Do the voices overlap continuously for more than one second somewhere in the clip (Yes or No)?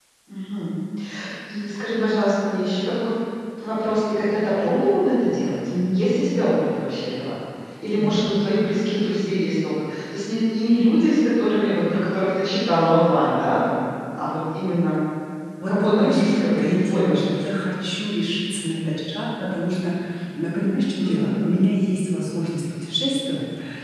Yes